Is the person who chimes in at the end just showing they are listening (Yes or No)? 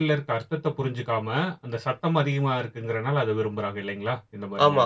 No